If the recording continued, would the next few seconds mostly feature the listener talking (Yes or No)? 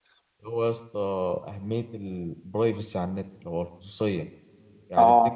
No